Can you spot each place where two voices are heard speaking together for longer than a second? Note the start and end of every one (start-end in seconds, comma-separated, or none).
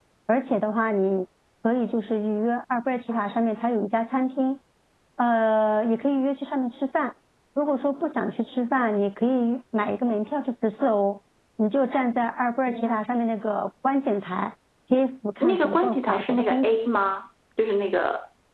15.4-16.8